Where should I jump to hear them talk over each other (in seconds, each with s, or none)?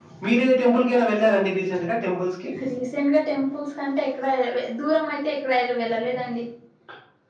none